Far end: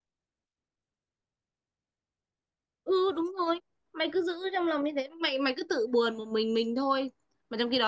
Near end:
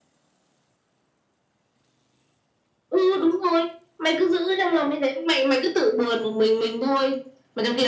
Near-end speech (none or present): none